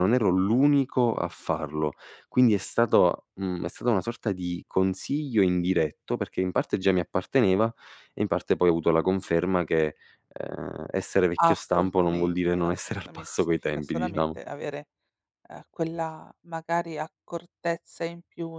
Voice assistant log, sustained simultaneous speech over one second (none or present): present